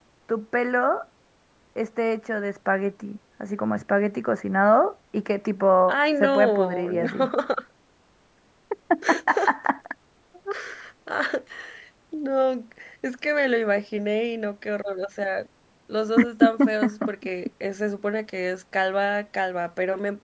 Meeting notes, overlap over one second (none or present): present